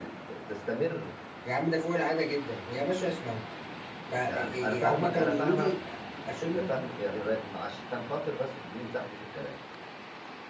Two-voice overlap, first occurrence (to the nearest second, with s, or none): 4 s